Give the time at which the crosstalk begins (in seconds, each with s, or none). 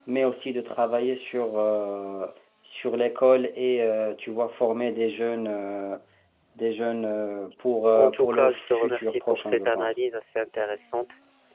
8.0 s